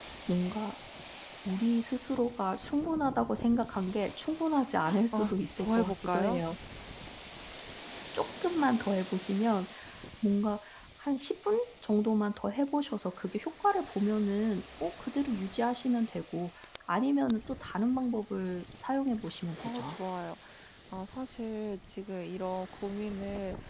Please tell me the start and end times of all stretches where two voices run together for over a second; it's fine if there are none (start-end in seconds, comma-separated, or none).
5.1-6.4